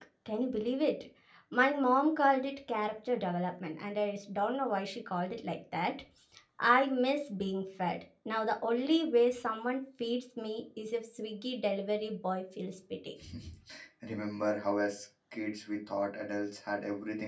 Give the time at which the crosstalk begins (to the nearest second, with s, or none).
none